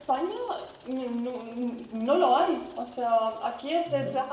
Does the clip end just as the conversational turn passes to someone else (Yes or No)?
No